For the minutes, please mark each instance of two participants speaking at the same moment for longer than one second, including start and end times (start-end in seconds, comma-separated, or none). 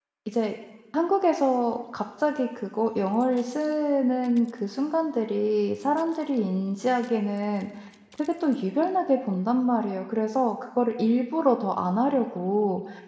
none